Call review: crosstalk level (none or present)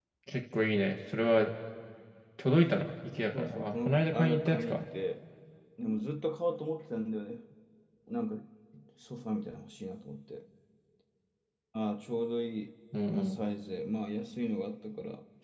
present